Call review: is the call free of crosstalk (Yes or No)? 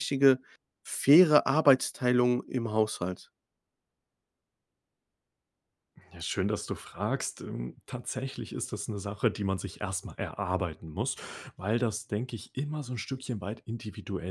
Yes